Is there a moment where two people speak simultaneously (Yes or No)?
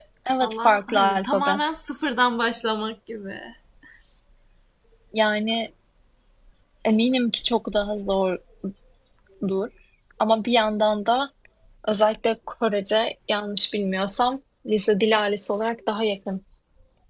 Yes